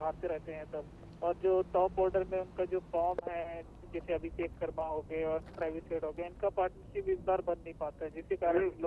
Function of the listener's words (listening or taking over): taking over